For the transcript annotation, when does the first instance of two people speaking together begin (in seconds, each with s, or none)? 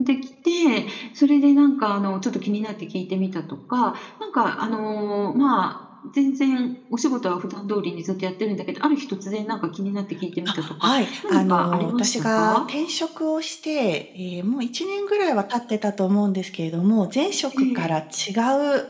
10.4 s